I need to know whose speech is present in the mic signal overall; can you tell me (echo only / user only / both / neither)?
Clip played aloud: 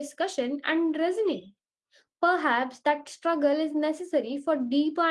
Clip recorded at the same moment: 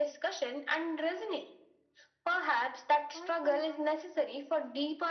both